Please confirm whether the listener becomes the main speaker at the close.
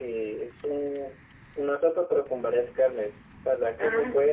No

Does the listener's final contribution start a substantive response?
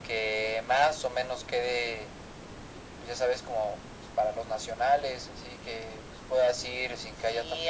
Yes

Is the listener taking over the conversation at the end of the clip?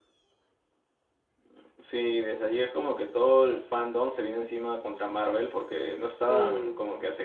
No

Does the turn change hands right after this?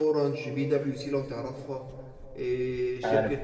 No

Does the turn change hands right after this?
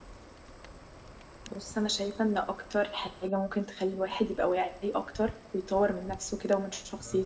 No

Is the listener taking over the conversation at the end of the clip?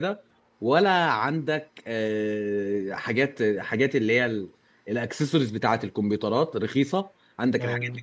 No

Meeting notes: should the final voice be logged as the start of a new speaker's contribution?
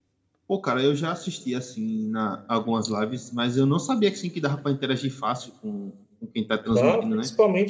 Yes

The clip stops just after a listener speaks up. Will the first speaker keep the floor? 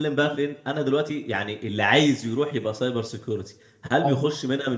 Yes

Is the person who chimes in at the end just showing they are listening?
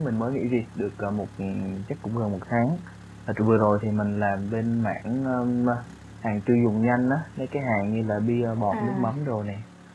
Yes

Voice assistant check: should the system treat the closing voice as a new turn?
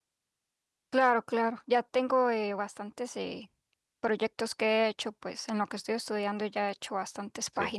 No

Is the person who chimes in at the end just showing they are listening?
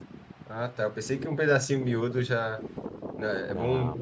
Yes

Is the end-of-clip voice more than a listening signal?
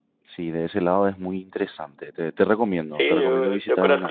Yes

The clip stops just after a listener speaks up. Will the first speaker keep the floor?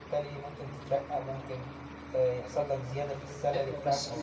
No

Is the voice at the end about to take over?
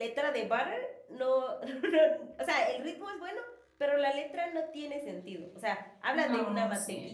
No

